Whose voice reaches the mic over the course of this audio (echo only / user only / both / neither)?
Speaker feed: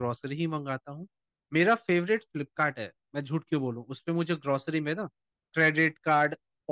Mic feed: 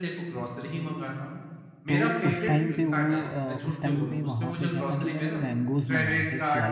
both